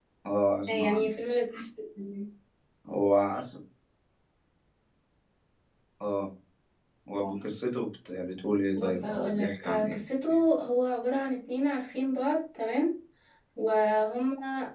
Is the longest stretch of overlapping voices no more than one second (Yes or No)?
No